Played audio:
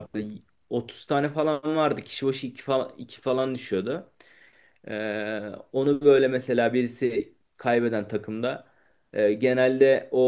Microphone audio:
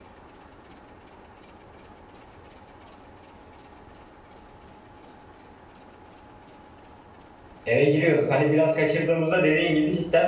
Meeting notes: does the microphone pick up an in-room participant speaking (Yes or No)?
Yes